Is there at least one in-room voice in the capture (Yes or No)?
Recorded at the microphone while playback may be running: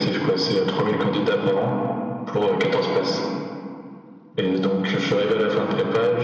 No